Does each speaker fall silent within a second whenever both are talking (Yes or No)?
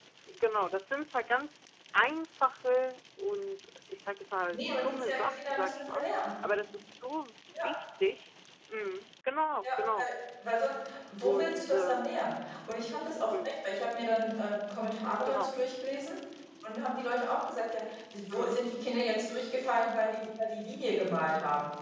No